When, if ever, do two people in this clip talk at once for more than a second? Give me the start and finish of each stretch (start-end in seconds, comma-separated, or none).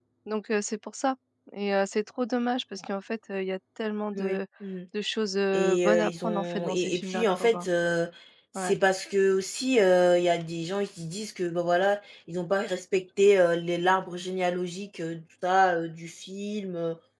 5.5-7.7